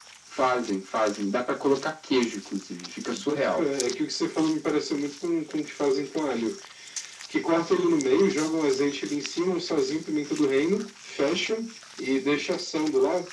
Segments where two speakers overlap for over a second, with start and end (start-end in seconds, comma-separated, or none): none